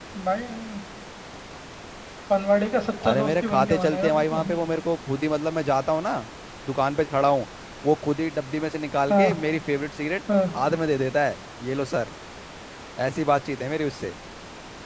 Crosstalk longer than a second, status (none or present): present